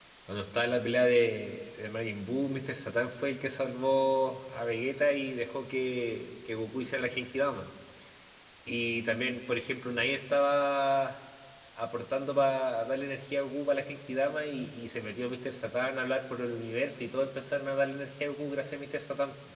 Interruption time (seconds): none

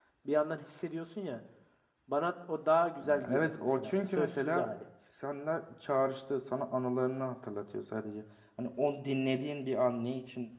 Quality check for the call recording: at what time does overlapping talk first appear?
3.0 s

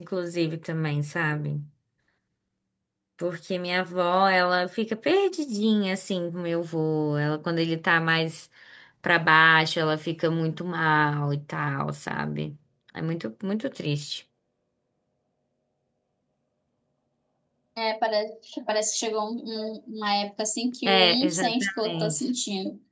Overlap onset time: 20.8 s

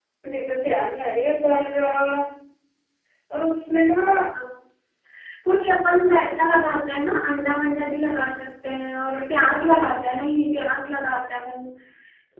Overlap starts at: none

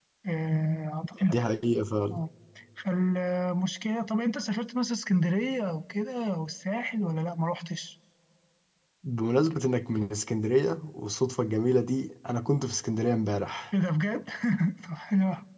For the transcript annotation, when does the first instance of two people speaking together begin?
none

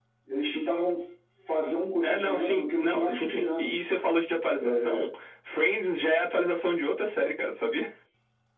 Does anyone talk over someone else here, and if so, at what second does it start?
2.0 s

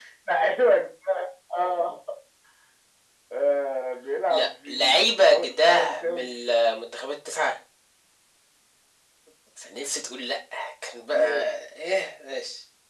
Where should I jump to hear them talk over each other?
4.3 s

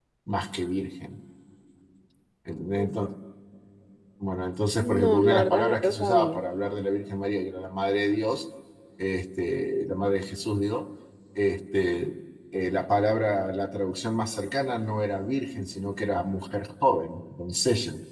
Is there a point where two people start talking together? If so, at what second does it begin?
4.8 s

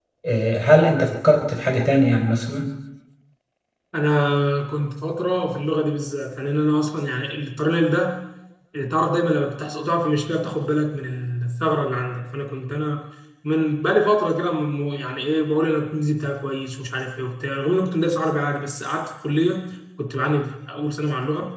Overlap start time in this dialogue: none

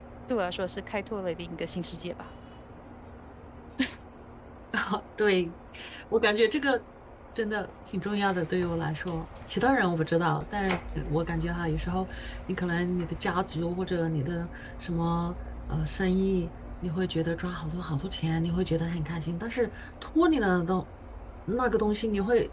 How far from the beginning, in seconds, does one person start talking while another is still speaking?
none

